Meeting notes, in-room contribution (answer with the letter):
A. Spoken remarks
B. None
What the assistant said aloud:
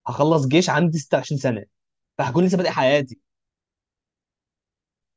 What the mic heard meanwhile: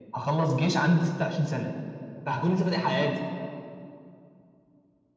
B